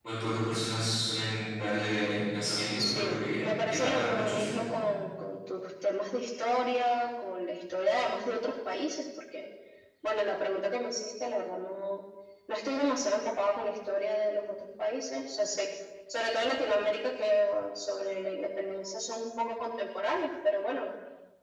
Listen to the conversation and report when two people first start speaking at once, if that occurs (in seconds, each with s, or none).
2.8 s